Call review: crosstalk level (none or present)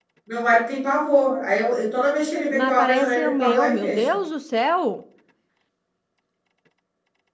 present